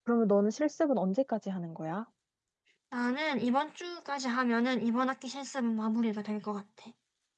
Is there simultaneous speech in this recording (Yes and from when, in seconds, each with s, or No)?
No